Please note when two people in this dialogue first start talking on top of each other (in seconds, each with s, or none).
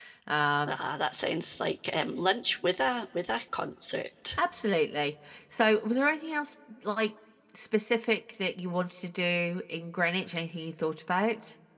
none